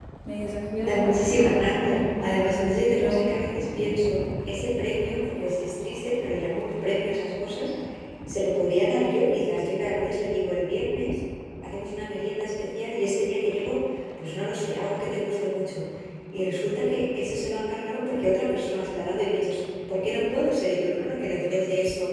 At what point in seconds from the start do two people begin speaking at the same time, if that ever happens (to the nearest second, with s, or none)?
1 s